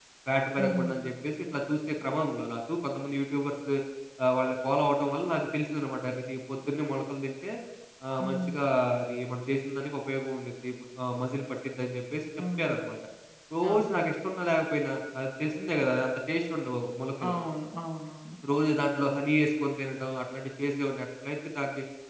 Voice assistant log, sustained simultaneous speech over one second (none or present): none